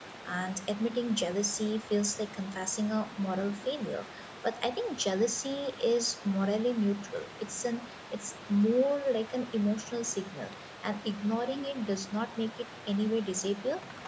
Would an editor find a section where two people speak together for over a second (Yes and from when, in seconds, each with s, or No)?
No